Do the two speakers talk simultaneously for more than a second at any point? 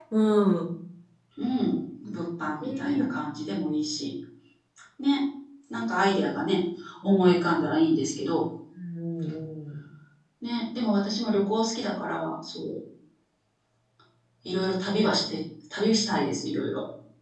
No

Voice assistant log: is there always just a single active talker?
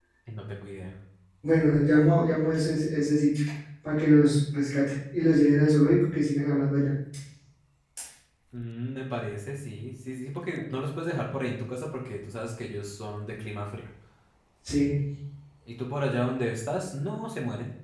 Yes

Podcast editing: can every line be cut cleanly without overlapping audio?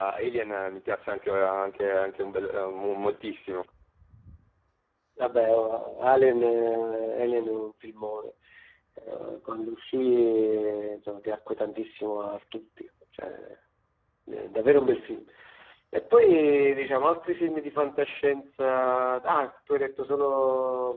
Yes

